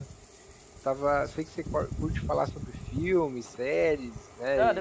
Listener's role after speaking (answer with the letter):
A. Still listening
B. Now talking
B